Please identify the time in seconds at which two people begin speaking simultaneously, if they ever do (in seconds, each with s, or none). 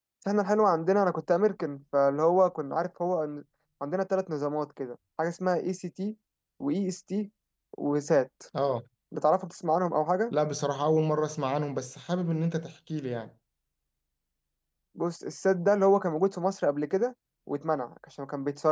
none